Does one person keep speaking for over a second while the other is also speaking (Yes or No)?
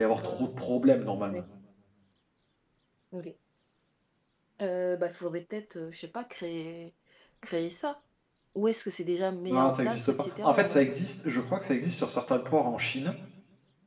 Yes